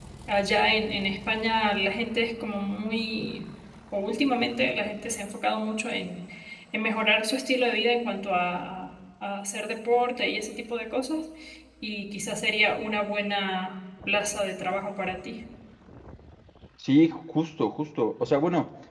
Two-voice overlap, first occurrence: none

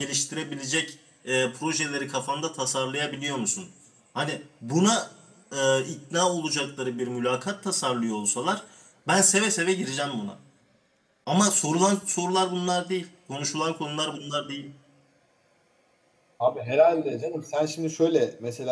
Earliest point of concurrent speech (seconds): none

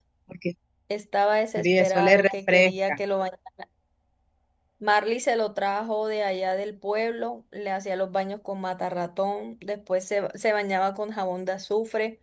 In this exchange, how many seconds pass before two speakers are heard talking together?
2 s

